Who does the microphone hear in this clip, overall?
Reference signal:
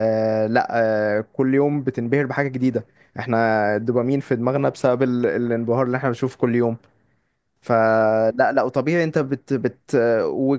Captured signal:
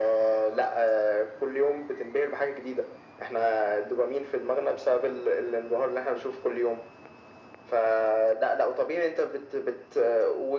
echo only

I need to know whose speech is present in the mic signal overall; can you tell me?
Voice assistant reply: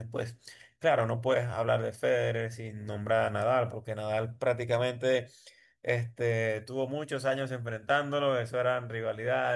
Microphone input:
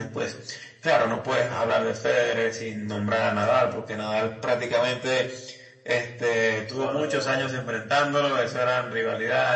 both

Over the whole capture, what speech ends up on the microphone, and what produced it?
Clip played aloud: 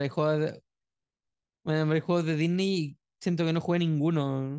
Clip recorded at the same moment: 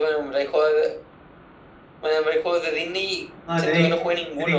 both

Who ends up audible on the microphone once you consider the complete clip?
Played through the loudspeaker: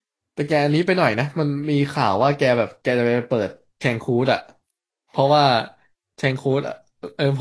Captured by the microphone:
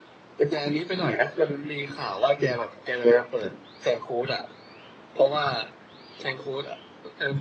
echo only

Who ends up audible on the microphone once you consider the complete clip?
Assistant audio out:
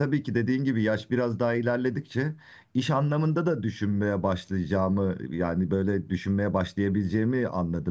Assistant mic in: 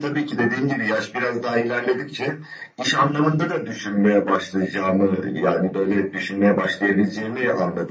echo only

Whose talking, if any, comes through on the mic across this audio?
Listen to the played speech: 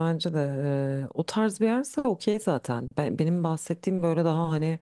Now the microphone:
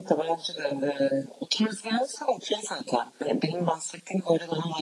echo only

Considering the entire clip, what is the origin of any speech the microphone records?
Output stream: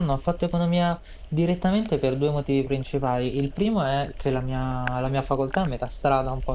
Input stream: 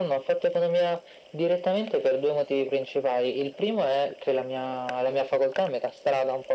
echo only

